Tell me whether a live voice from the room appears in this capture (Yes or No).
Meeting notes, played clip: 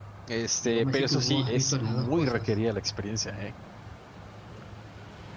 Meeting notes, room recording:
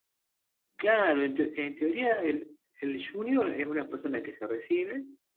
Yes